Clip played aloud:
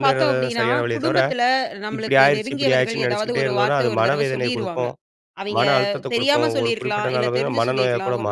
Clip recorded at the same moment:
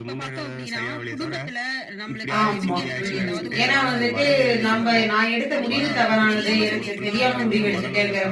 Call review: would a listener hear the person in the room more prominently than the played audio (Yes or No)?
Yes